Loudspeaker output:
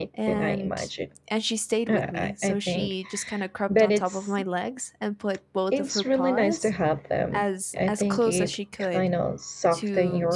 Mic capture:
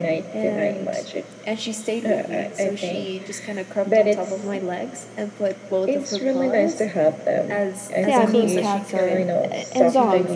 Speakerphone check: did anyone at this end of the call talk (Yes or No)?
Yes